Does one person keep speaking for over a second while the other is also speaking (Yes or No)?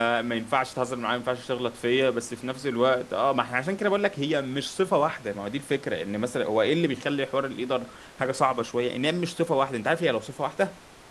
No